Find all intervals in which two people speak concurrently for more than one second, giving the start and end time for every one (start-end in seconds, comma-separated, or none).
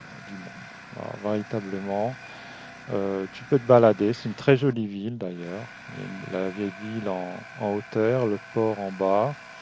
none